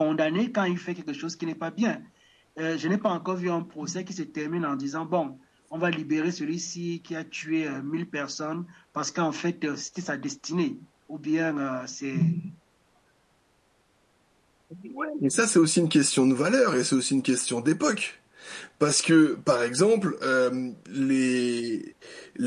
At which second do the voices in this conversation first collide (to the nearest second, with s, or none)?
none